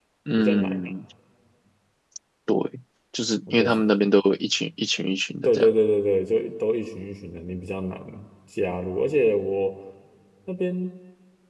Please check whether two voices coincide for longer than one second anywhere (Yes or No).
No